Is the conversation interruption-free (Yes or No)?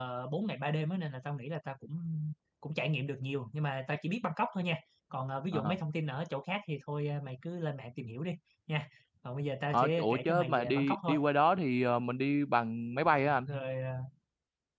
No